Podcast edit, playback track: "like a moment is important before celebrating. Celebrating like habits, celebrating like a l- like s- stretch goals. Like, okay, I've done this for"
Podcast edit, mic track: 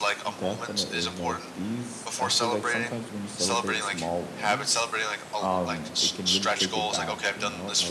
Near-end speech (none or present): present